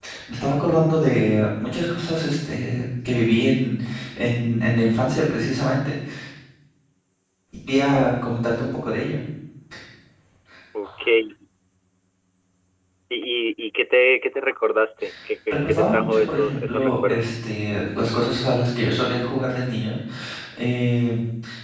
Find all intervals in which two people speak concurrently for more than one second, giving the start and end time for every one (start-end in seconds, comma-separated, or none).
15.7-17.2